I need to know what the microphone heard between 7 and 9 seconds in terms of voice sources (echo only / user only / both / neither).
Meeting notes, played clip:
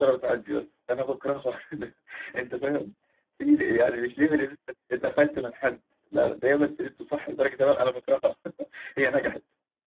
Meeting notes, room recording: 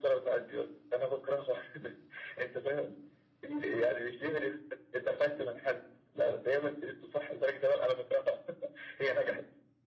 echo only